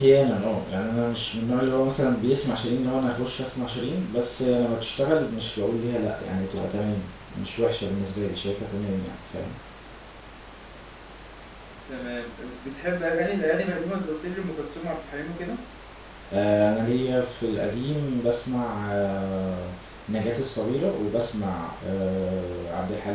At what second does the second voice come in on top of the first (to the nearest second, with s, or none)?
none